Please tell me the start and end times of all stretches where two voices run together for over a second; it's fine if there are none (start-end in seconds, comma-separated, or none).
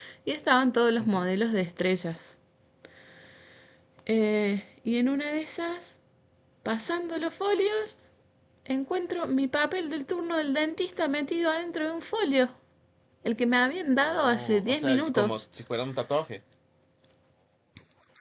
13.9-15.4